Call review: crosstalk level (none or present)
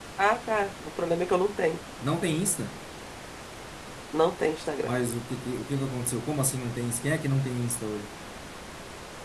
none